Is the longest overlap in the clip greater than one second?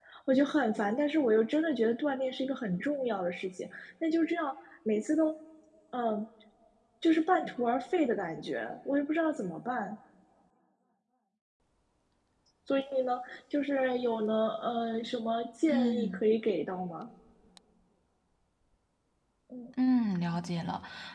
No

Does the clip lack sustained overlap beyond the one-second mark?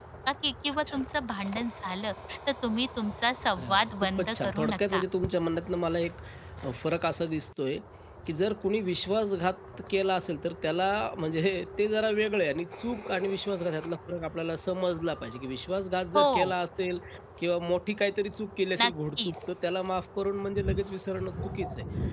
No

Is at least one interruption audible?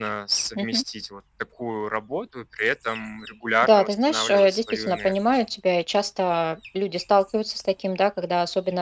Yes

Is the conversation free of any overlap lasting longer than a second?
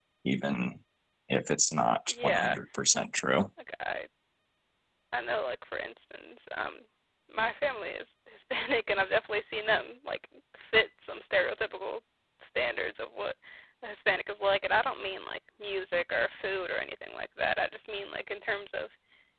Yes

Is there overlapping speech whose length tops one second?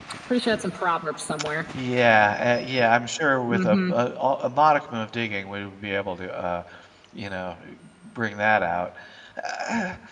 No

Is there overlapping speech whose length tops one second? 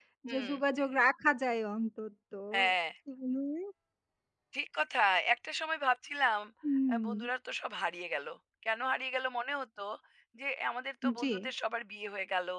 No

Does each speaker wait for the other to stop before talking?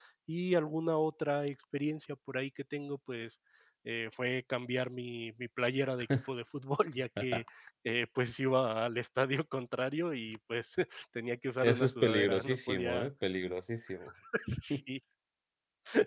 No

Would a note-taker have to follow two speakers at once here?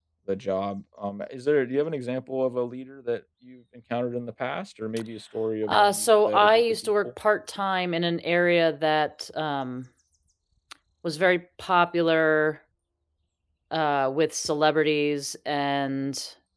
Yes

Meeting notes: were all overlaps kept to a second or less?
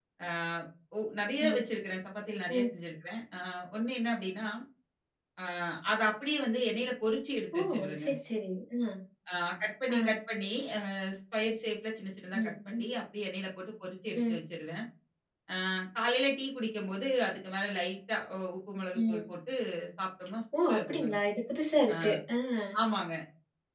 Yes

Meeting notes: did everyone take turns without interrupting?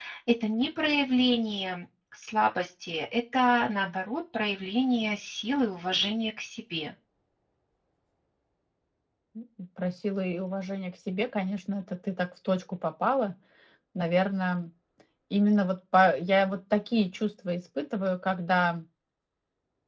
Yes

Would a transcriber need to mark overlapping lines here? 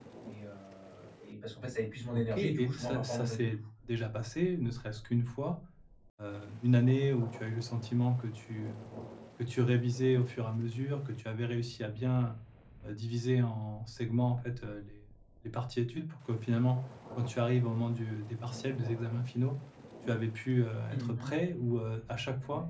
Yes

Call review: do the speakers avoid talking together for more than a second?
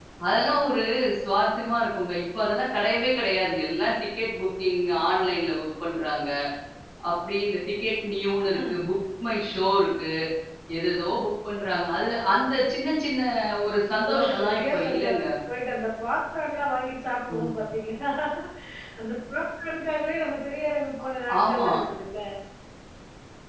No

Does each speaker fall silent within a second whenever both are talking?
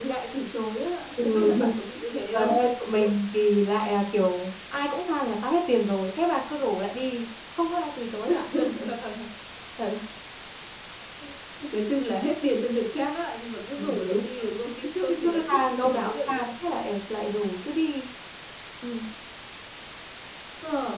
No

